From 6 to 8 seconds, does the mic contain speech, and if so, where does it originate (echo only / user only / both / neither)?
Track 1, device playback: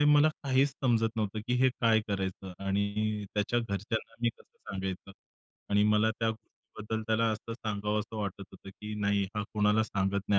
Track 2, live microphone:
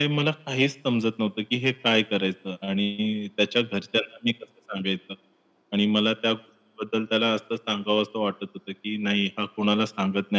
echo only